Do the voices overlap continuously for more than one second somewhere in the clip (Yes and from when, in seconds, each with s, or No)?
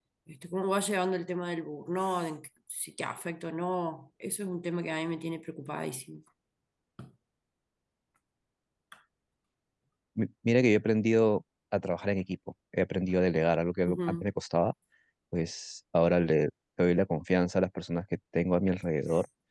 No